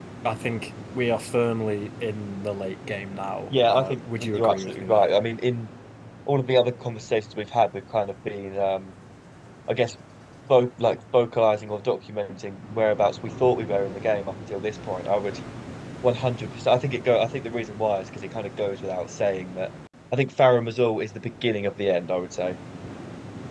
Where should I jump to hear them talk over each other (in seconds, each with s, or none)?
3.5 s